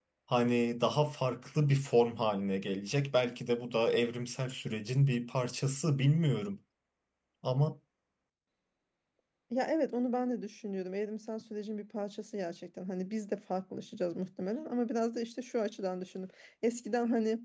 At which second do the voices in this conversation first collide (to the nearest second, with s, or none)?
none